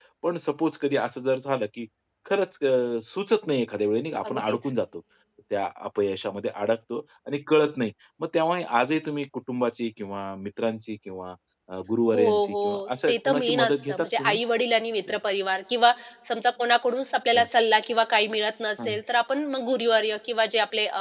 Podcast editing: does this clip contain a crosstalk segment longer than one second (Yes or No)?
Yes